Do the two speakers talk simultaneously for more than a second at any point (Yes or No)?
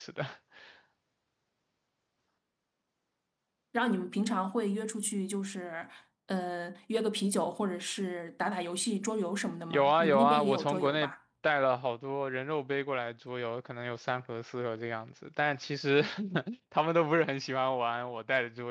Yes